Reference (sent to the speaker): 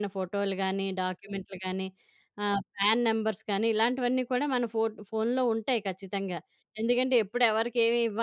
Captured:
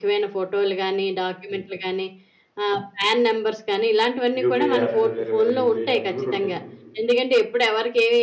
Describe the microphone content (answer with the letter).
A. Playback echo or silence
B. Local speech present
B